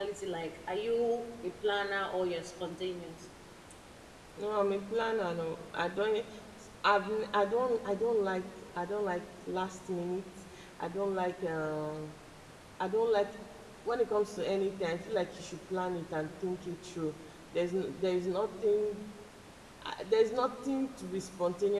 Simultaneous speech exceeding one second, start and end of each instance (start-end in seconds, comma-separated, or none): none